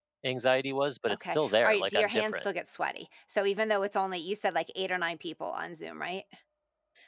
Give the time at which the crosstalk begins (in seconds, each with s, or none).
1.1 s